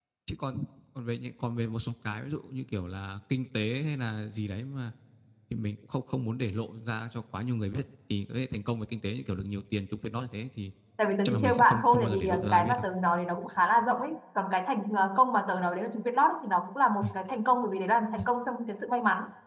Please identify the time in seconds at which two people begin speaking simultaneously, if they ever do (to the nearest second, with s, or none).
11 s